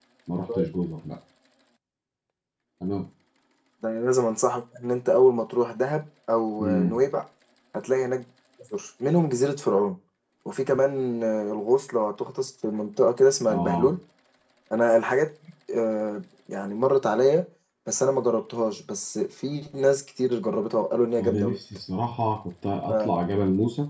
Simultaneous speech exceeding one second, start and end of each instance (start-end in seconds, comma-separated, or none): none